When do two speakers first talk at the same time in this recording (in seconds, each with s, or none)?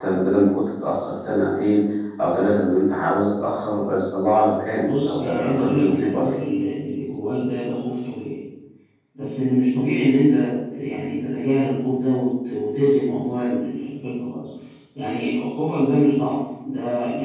4.8 s